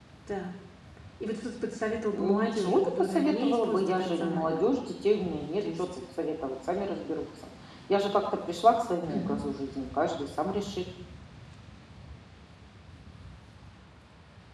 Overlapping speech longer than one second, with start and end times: 2.1-4.6

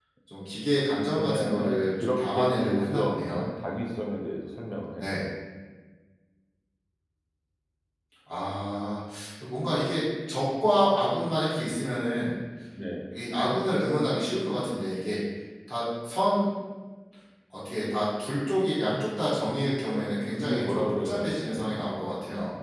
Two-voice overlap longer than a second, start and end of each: 1.2-3.4, 20.4-21.8

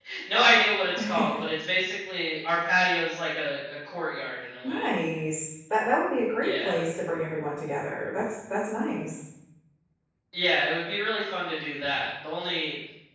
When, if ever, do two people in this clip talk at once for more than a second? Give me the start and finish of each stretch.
none

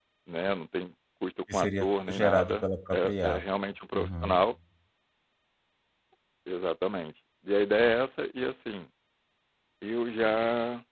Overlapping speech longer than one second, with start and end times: 1.5-3.4

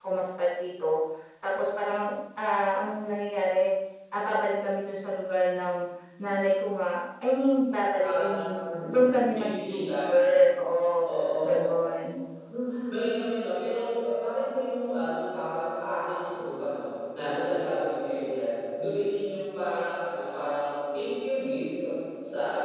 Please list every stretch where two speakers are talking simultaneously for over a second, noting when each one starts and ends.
8.9-10.1

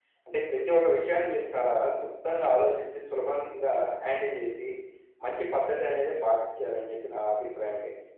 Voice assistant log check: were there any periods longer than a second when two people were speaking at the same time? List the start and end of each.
none

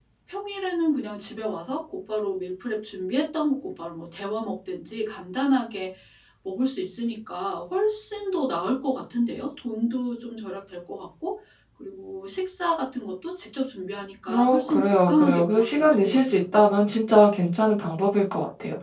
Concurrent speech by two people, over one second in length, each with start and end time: 14.3-16.4

